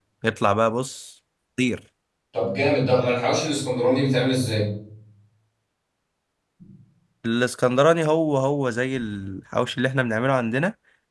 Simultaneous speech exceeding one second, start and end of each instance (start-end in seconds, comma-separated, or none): none